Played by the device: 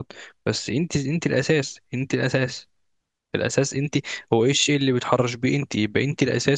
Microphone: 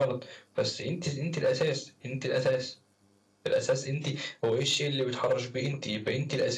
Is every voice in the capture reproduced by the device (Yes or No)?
Yes